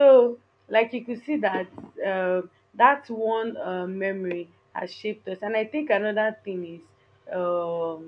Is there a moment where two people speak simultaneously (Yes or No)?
No